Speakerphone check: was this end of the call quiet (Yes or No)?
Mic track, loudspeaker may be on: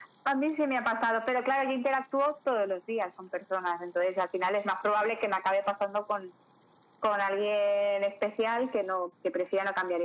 Yes